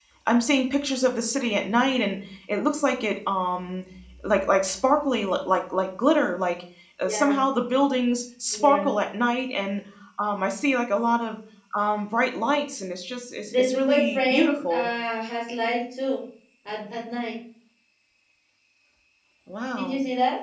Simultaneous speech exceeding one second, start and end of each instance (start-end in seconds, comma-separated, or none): 13.4-14.9